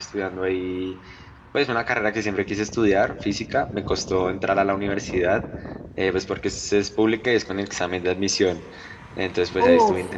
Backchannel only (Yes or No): Yes